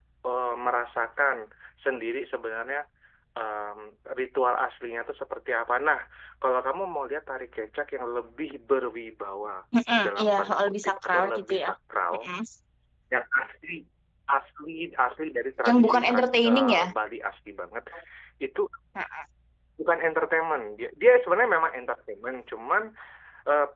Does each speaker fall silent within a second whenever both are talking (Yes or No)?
No